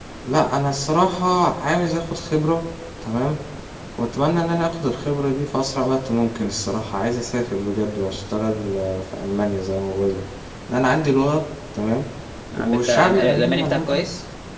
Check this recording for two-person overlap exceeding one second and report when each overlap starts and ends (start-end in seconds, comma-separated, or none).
12.5-14.1